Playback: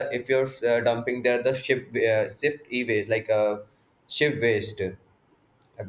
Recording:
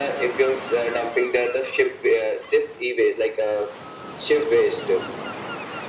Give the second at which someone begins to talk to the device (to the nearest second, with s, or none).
none